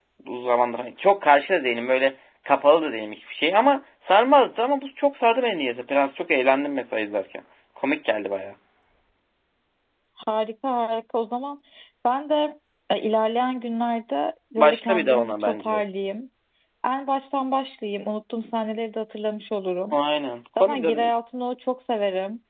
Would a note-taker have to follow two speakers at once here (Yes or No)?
Yes